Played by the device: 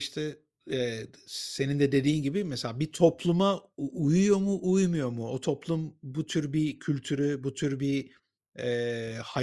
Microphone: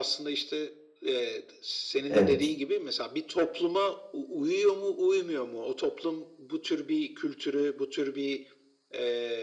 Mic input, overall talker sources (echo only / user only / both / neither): both